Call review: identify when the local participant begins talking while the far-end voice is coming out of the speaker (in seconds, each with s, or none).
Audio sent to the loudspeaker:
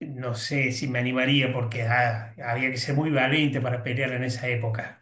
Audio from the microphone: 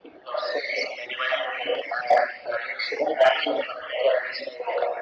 none